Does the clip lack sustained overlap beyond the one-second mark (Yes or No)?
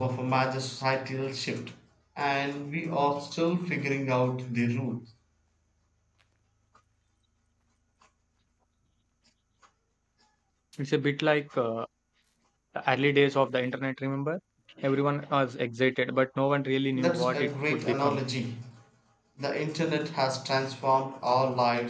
No